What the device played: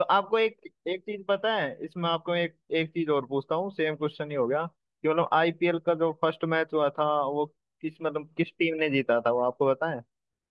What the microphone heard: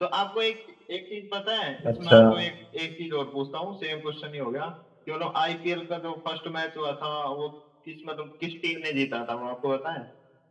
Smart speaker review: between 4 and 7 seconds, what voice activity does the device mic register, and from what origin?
echo only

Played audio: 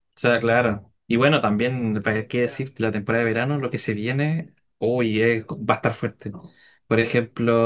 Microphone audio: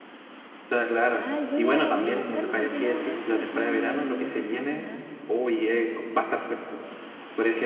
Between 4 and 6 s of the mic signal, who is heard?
both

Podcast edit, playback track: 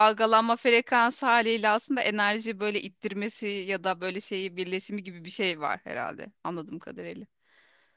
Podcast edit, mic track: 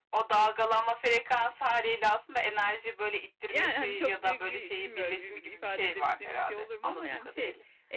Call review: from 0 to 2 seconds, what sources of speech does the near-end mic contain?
echo only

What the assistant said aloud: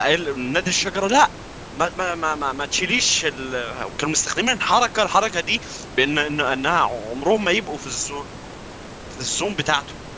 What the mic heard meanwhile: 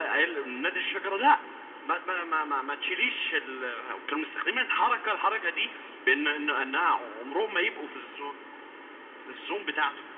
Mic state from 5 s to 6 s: echo only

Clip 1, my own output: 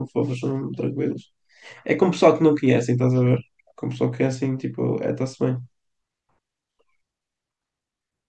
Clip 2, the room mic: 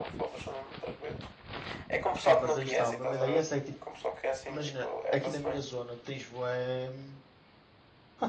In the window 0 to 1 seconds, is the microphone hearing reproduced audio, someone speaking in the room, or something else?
echo only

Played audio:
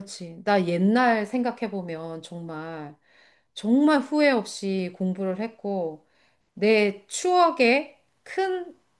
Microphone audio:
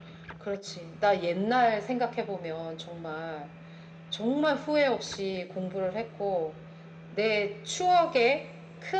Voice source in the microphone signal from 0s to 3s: echo only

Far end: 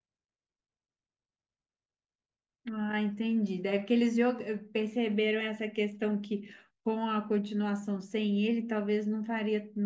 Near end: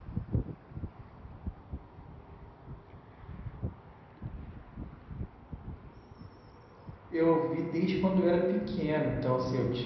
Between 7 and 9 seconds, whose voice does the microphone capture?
user only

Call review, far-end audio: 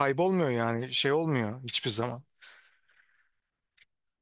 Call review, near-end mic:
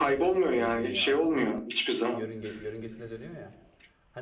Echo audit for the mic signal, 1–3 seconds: both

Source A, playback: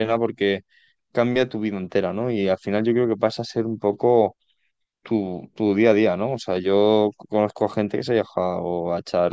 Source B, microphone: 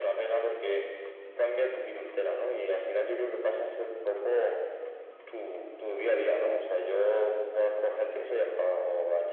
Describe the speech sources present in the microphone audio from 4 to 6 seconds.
echo only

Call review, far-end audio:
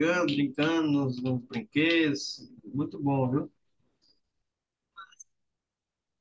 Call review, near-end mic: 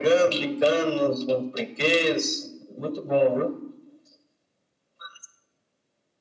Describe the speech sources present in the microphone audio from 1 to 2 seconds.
echo only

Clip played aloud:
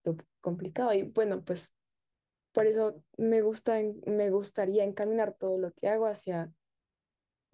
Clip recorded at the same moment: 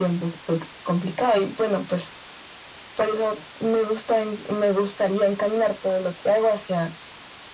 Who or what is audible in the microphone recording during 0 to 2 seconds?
echo only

